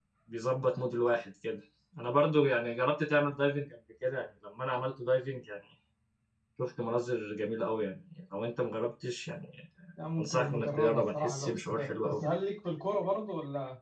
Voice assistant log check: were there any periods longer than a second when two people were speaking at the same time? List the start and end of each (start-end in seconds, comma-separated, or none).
10.2-12.2